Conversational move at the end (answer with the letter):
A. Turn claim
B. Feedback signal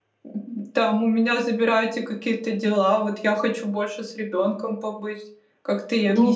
A